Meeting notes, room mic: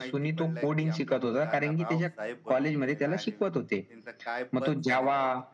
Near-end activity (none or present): present